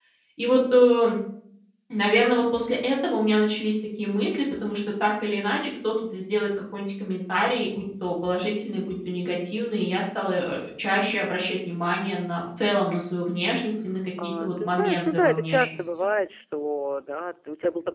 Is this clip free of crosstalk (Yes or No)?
No